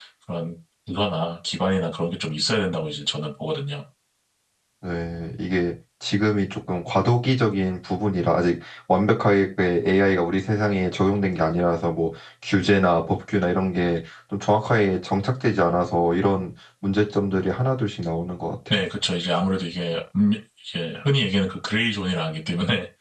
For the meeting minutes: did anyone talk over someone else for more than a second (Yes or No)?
No